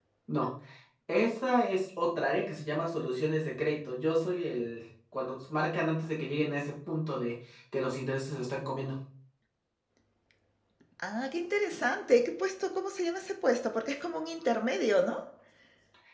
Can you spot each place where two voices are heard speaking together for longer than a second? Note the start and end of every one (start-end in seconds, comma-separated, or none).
none